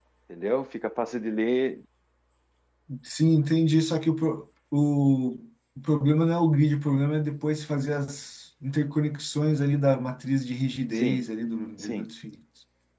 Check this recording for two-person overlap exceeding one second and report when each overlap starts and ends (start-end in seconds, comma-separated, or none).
none